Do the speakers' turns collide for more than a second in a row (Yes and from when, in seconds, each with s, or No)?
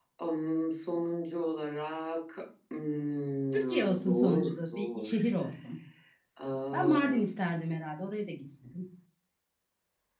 Yes, from 3.5 s